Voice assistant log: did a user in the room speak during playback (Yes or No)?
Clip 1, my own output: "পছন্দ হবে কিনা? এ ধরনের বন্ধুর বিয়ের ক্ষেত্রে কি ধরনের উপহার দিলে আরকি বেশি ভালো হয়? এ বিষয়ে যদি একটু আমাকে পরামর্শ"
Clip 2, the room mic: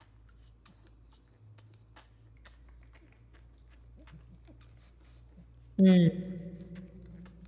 Yes